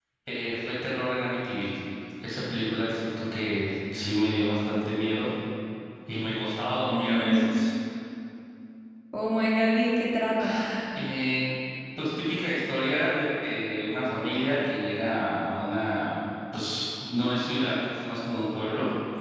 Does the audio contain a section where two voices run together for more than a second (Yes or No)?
No